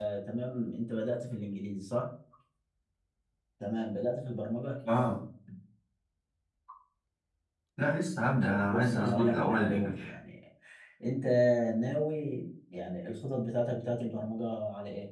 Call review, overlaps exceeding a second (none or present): present